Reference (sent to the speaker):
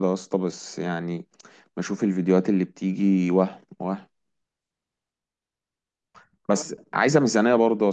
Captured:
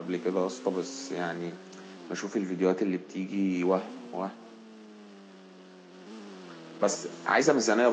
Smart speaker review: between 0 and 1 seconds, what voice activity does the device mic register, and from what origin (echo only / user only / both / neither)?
echo only